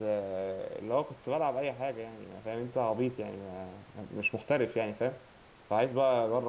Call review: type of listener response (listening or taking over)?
listening